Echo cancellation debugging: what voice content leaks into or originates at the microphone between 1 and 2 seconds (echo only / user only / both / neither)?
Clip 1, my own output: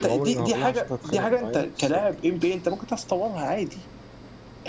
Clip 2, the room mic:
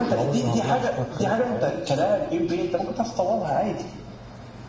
echo only